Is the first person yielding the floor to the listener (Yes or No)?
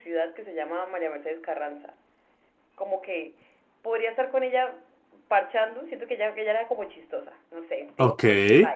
No